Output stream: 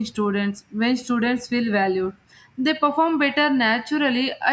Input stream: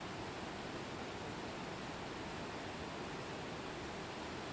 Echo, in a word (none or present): none